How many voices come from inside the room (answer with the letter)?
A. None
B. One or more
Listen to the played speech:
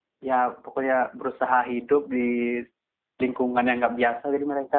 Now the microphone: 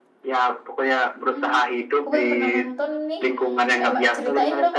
B